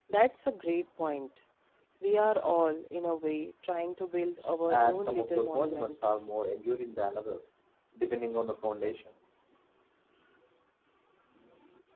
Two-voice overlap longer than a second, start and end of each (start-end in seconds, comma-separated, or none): 4.7-6.2